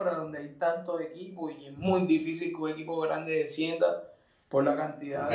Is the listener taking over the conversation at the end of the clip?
Yes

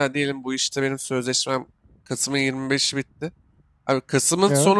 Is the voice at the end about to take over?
No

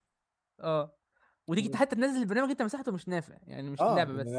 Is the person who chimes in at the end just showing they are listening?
No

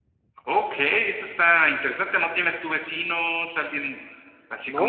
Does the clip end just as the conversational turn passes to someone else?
Yes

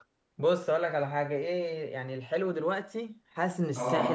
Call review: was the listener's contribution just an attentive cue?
Yes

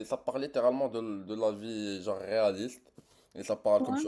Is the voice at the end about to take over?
No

